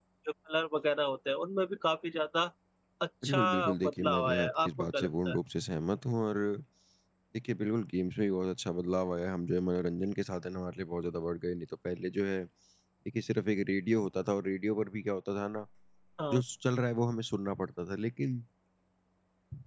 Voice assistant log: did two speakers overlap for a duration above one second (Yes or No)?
Yes